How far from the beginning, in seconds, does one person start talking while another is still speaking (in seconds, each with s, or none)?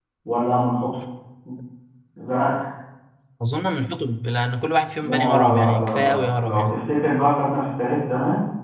5.0 s